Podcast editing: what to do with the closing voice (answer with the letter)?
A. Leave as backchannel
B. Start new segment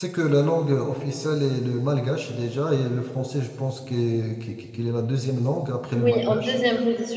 B